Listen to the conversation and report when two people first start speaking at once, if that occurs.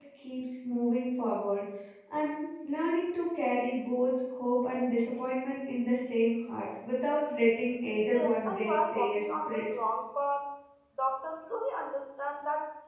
8.1 s

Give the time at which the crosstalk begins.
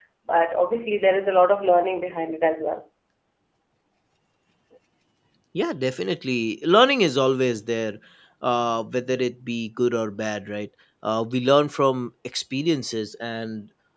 none

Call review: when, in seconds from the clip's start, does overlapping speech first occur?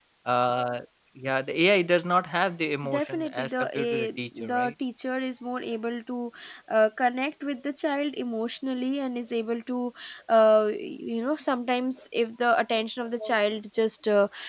2.8 s

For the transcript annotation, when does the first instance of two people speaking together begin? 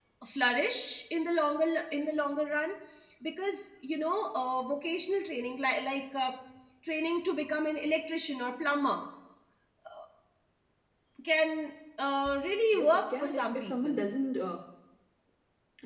12.7 s

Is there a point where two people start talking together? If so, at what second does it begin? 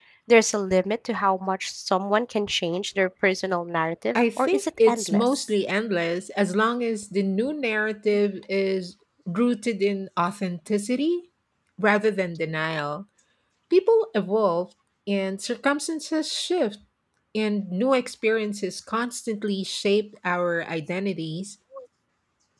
4.2 s

